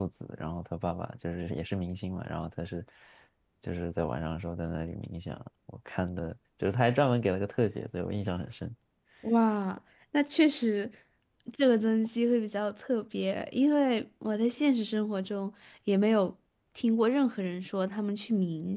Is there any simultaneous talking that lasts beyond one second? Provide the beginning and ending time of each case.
none

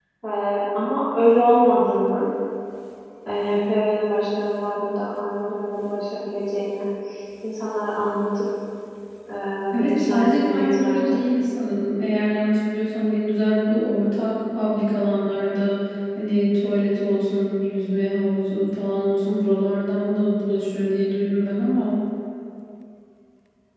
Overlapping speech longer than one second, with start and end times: 9.8-11.2

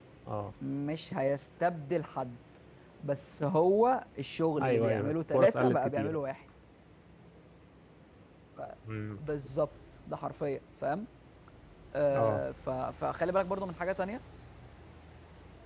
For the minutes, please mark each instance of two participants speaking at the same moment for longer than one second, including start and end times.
4.6-6.2

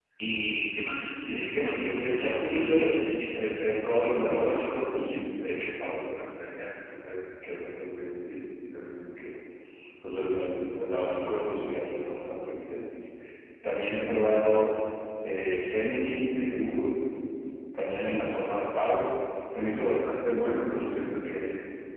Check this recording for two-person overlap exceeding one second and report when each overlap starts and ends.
1.2-3.0

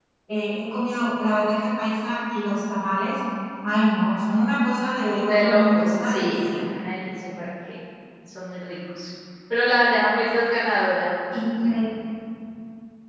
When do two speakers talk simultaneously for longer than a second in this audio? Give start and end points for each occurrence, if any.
5.2-6.5

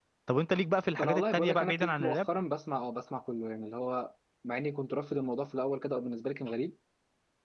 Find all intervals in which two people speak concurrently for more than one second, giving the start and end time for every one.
1.0-2.3

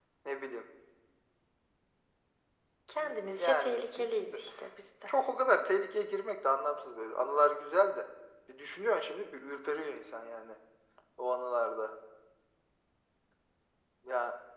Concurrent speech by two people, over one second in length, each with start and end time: 3.0-4.3

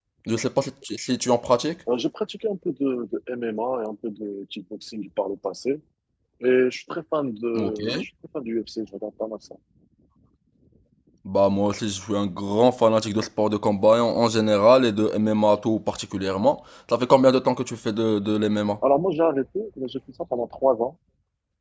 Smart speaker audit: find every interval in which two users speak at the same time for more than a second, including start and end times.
none

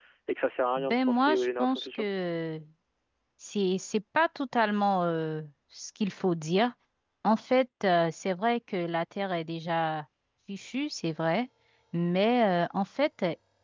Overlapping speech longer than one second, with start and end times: 0.8-2.0

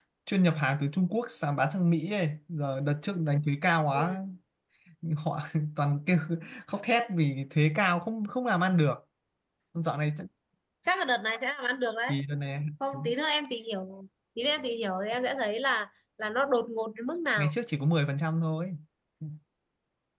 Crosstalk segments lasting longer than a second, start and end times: none

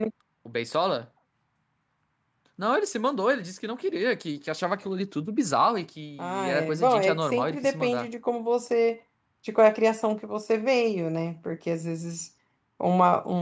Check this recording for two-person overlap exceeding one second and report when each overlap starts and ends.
6.2-8.1

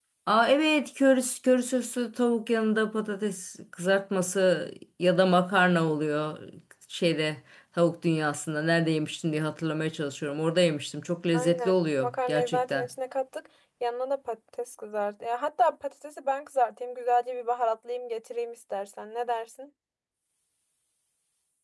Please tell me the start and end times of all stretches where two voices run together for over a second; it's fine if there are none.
11.3-12.9

